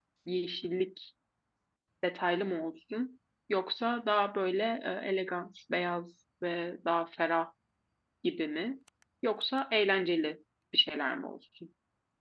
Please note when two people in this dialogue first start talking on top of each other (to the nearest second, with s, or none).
none